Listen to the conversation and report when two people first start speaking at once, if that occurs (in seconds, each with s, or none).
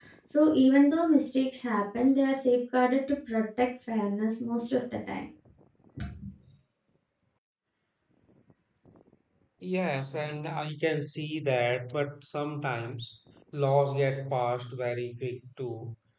none